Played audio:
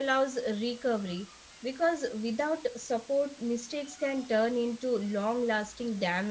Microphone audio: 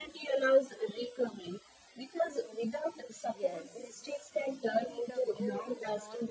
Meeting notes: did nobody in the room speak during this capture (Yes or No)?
No